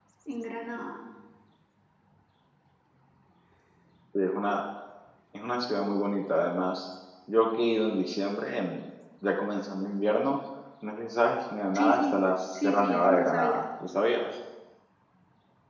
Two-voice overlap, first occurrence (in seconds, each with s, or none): 11.7 s